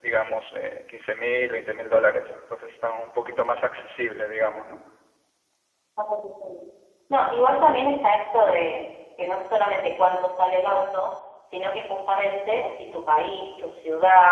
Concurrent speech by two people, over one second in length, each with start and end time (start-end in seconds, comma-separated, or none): none